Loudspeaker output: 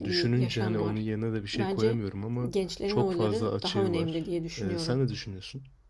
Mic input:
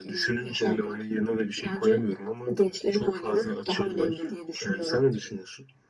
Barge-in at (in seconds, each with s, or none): none